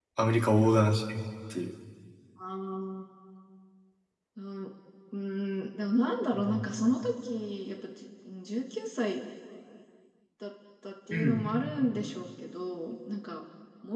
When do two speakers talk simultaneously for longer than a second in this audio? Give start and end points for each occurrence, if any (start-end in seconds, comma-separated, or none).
none